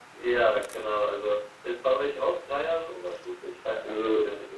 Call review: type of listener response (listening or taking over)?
taking over